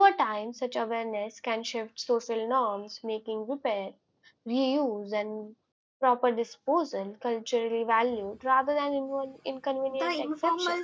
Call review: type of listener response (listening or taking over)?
taking over